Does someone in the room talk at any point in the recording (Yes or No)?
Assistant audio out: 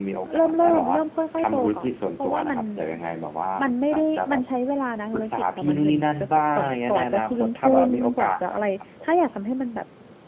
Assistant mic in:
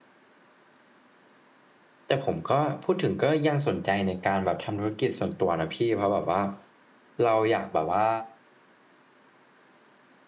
Yes